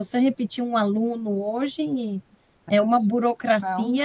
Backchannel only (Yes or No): Yes